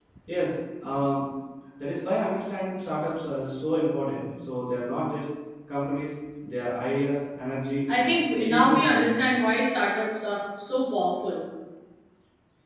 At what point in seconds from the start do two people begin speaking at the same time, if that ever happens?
7.9 s

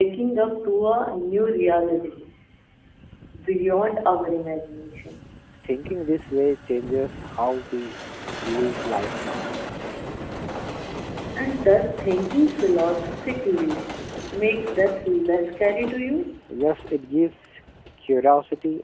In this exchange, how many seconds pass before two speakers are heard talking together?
none

